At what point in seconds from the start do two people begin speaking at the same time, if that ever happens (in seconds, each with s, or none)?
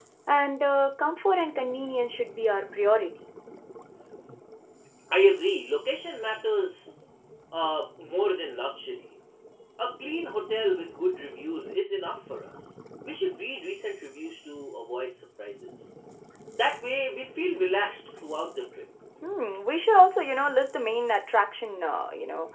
none